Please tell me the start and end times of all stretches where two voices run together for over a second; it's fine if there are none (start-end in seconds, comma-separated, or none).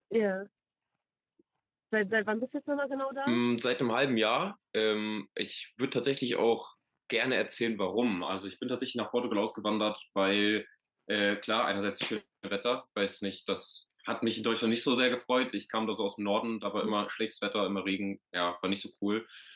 none